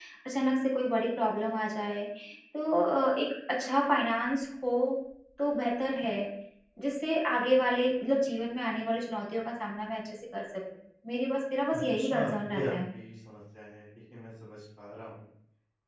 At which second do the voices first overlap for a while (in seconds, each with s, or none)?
11.7 s